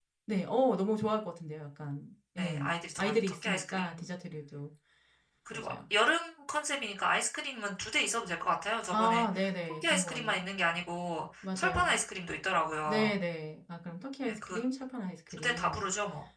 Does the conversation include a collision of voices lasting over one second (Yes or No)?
Yes